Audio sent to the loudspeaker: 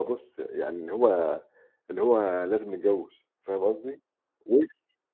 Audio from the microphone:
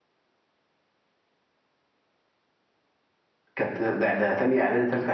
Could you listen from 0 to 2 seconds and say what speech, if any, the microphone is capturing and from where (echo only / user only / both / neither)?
neither